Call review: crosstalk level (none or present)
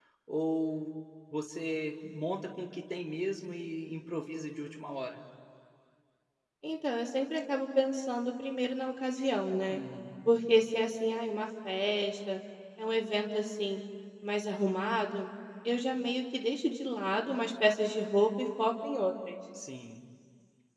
none